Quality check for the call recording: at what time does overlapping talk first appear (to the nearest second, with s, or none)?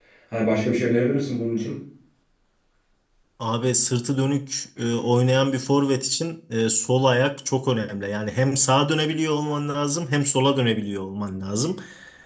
none